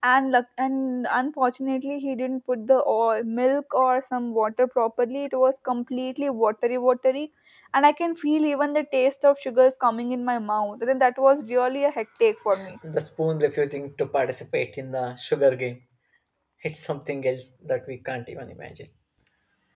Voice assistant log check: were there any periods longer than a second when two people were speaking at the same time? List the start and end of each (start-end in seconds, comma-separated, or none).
none